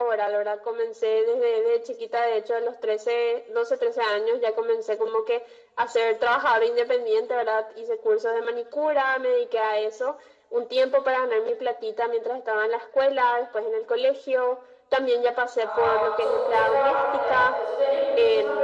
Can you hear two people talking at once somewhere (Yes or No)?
Yes